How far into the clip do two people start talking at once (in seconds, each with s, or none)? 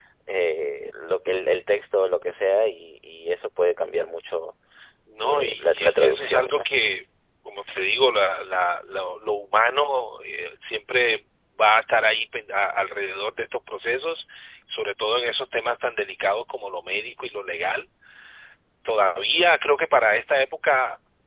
5.2 s